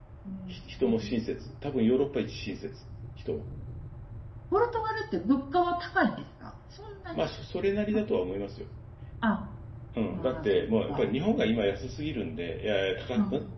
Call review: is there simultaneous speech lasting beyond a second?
Yes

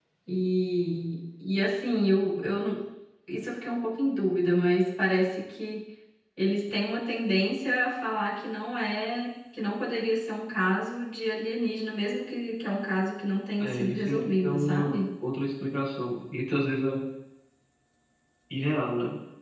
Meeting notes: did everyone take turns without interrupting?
No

